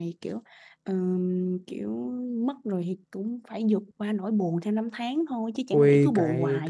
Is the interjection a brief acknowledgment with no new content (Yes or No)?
No